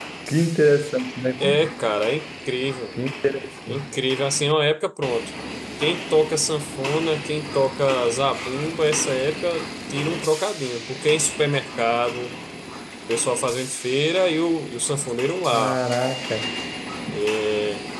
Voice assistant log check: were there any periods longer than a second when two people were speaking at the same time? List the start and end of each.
none

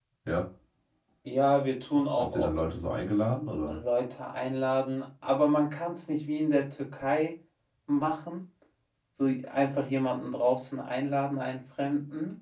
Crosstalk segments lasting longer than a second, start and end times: none

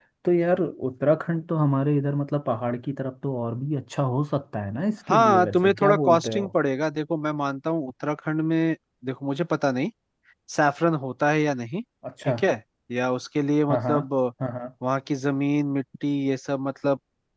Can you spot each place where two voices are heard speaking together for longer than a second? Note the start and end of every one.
5.1-6.5

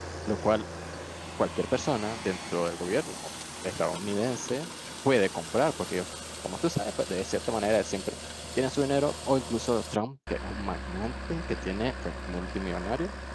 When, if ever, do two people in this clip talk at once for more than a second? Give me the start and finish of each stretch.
none

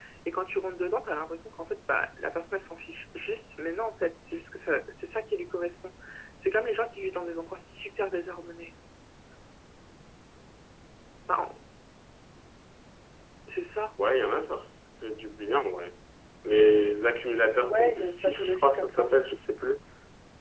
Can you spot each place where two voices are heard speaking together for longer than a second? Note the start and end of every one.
17.6-19.1

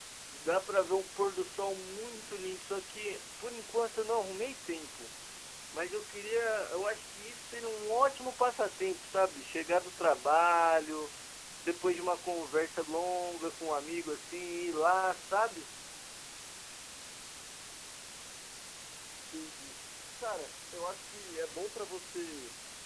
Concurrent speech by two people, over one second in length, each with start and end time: none

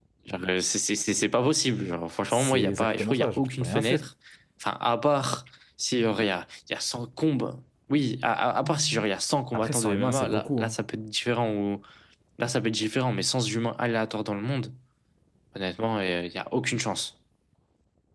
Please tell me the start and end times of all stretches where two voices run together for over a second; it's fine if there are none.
2.3-4.0, 9.5-10.8

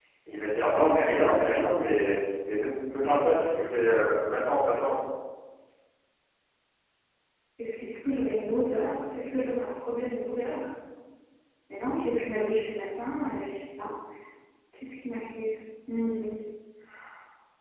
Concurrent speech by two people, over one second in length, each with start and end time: none

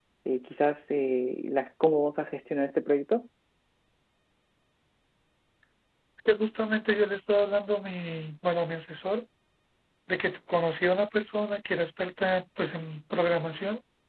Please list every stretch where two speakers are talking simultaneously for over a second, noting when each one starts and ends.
none

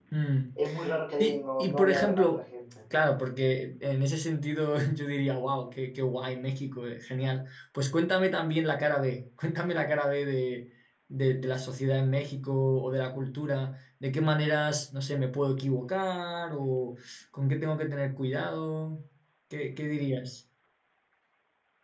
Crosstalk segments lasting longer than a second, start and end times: 1.2-2.4

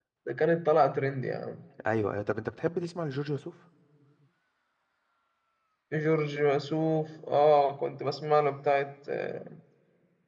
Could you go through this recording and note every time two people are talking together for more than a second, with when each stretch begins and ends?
none

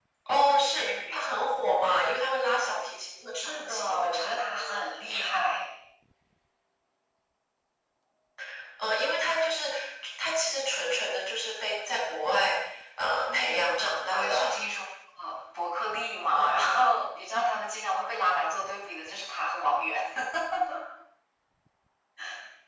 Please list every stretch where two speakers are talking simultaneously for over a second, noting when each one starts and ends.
3.4-4.9, 13.3-14.6

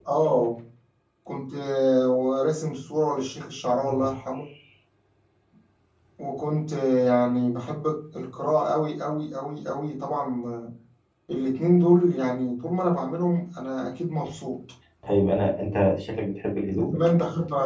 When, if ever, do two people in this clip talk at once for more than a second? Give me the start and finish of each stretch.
none

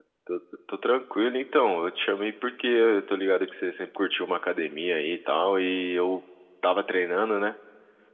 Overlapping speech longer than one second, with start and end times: none

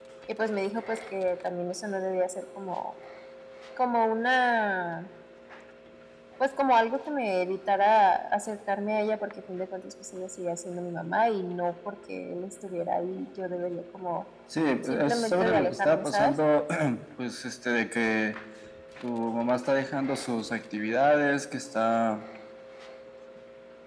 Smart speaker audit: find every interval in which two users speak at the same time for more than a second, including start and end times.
15.0-16.3

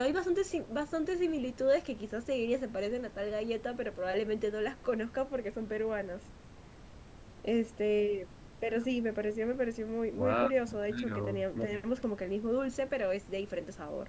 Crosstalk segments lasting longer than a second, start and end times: 10.1-11.8

